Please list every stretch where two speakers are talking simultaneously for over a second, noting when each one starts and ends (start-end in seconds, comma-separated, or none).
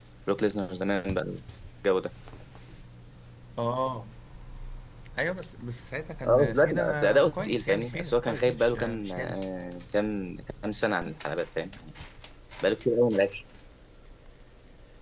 6.2-9.4